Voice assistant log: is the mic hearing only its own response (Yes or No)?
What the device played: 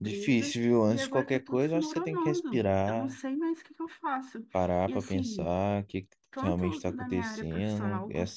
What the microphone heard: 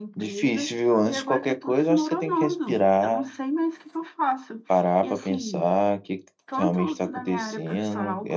Yes